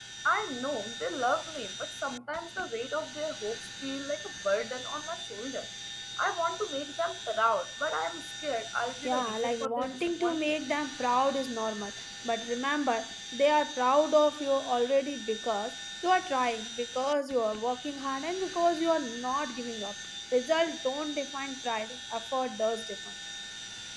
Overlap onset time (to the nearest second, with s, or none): 9 s